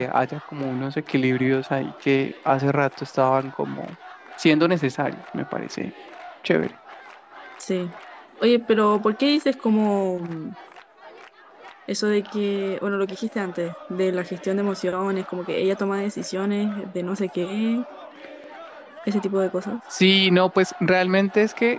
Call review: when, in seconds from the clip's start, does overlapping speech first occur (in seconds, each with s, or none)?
none